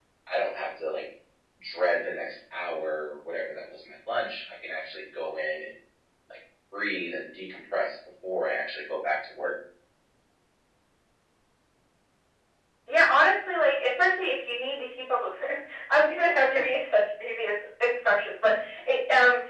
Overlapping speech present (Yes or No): No